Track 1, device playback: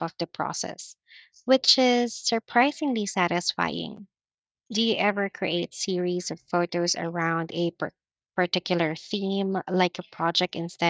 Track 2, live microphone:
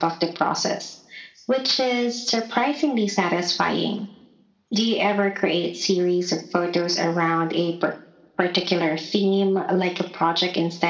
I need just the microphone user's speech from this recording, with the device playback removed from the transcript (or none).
none